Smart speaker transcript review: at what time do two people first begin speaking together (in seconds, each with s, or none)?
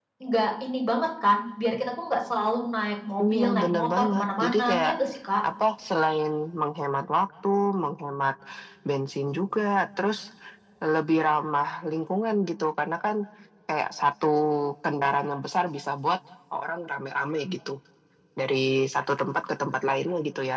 3.2 s